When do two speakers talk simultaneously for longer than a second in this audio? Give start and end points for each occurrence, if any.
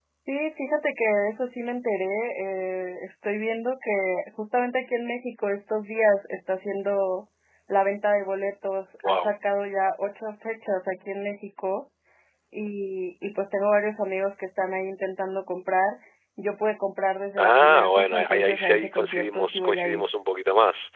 17.4-20.0

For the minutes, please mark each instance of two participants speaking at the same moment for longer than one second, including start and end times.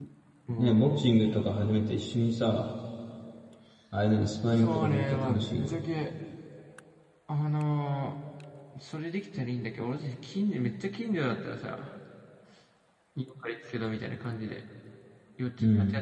4.6-5.8

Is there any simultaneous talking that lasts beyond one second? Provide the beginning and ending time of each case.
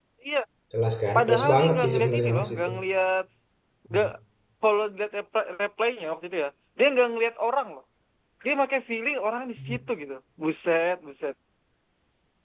1.2-2.7

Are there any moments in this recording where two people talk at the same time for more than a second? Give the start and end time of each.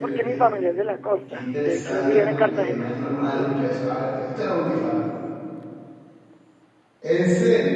1.3-2.9

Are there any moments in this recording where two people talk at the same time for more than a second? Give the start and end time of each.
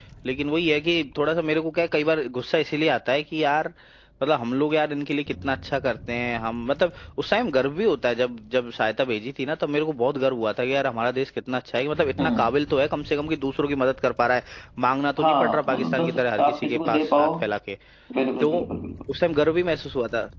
15.2-17.3

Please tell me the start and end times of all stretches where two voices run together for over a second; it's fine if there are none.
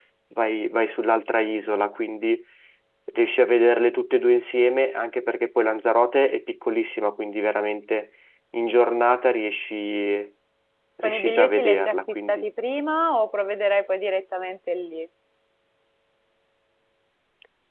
11.0-12.5

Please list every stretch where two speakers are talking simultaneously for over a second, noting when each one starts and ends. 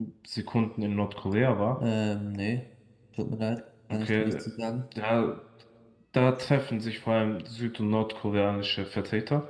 none

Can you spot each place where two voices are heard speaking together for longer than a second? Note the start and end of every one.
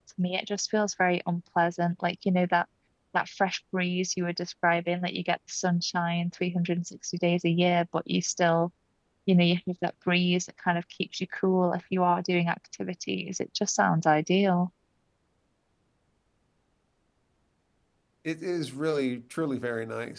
none

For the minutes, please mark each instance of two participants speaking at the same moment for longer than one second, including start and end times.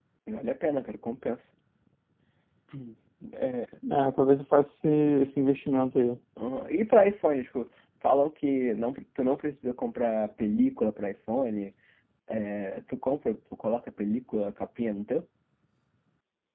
none

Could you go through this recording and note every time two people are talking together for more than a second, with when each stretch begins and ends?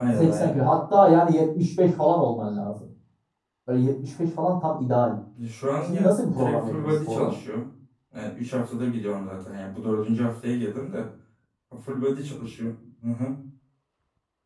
5.8-7.3

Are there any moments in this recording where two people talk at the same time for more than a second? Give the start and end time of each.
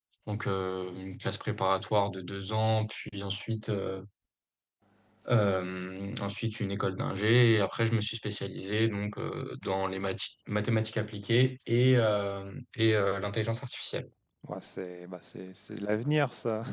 none

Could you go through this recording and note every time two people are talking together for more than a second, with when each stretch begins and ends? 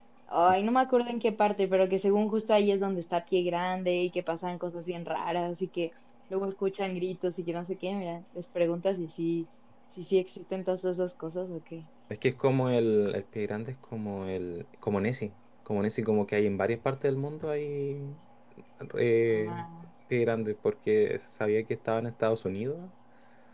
none

